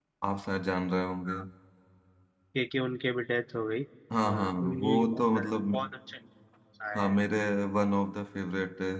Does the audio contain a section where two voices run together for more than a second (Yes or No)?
Yes